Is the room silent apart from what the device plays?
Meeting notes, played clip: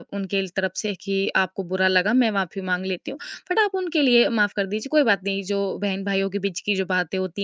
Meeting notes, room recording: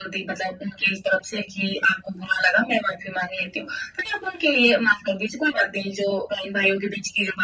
Yes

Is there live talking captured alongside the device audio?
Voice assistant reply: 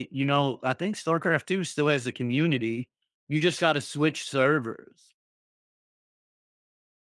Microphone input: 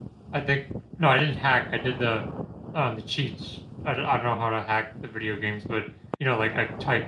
Yes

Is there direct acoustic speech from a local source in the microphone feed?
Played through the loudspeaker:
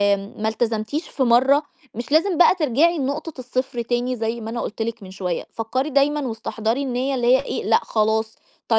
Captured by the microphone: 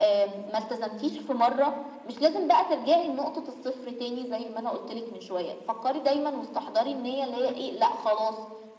No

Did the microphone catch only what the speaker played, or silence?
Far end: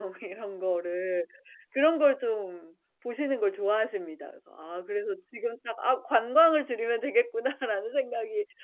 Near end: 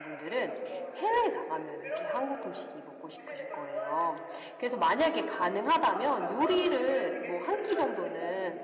No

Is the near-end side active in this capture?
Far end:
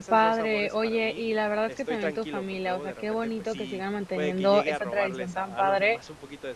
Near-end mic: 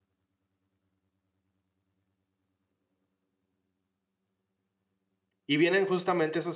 Yes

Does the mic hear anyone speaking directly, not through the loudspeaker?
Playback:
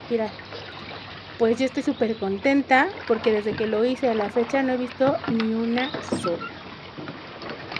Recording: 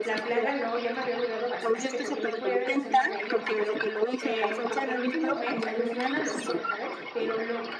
Yes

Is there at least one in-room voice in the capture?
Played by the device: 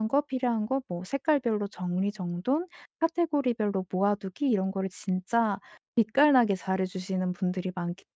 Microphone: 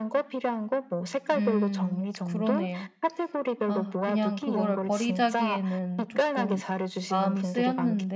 Yes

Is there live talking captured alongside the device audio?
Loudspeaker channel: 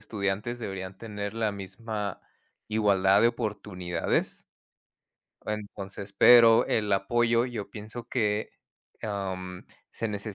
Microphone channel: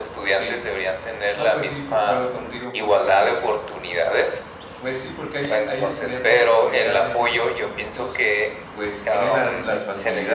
Yes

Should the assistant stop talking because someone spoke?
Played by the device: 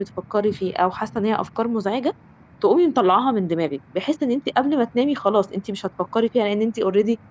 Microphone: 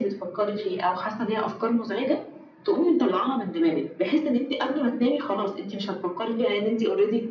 No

